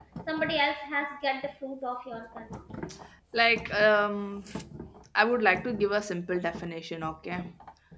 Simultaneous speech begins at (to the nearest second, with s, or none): none